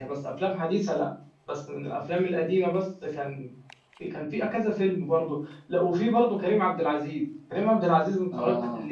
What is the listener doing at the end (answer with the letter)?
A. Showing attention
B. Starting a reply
A